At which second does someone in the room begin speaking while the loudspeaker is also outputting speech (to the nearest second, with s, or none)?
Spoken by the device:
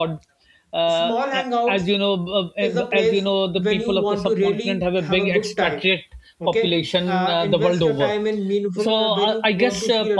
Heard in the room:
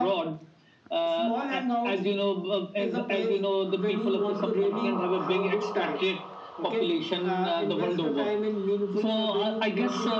none